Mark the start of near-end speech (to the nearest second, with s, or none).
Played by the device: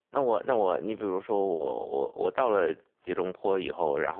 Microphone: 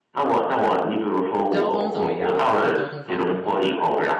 1 s